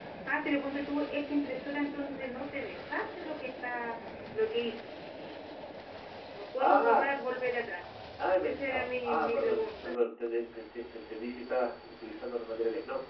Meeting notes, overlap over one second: present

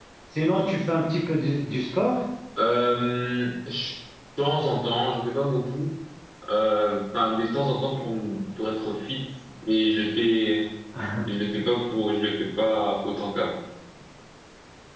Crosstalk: none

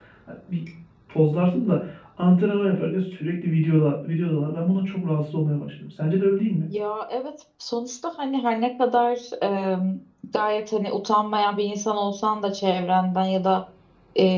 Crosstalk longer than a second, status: none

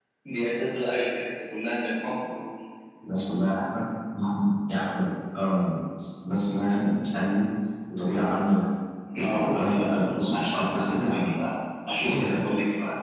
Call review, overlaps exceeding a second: present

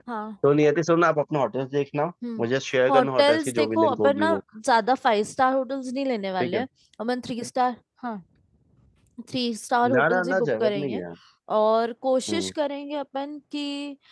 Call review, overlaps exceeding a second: present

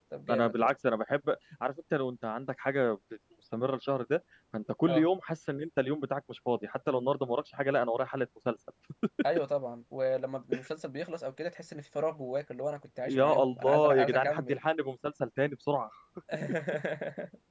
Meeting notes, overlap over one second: present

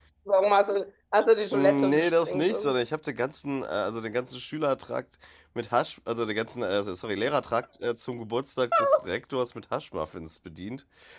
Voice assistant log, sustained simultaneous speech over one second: present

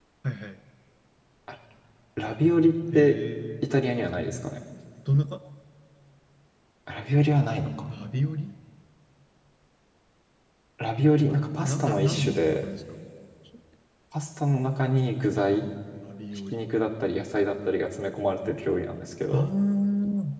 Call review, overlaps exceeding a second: present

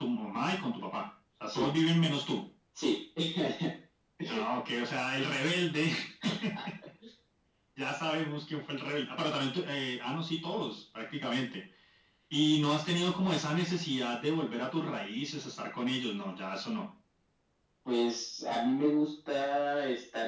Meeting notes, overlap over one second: none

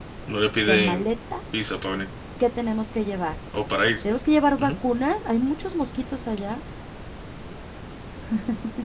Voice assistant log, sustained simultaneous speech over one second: none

